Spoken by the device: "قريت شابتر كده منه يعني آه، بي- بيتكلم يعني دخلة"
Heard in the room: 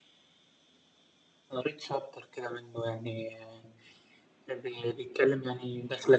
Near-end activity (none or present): none